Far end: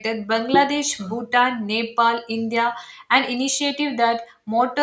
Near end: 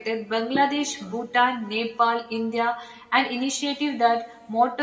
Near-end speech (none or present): none